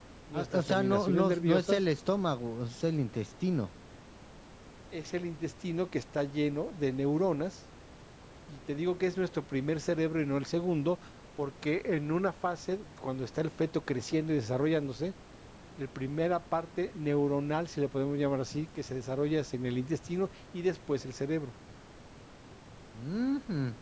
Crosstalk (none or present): present